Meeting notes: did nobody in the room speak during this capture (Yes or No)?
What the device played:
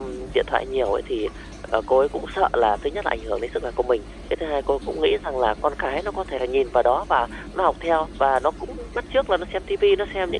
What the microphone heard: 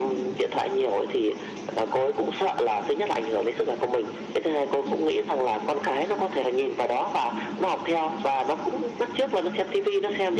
Yes